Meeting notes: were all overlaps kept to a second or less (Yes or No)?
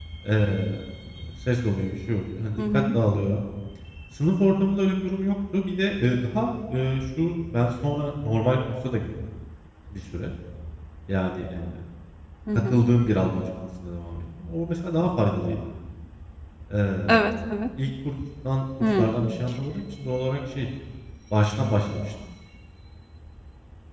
Yes